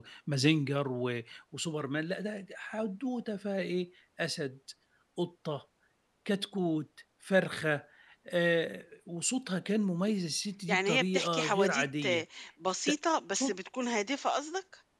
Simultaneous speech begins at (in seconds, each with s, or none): 10.7 s